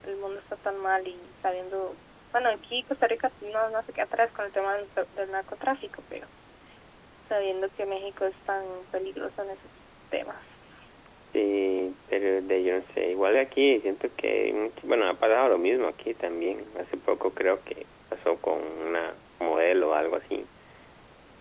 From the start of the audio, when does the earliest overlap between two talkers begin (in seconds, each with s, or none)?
none